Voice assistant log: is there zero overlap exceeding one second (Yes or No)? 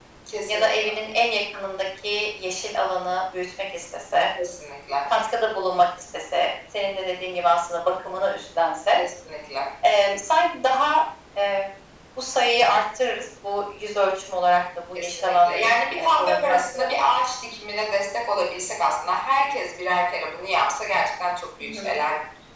No